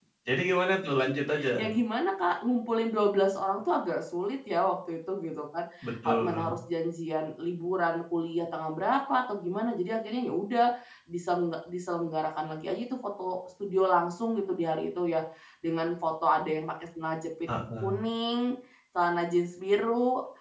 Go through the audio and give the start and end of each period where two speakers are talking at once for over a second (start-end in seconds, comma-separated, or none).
none